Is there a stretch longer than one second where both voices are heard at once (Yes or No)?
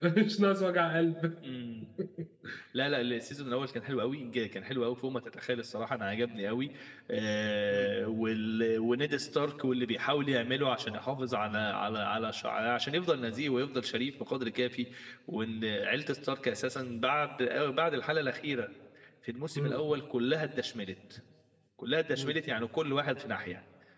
No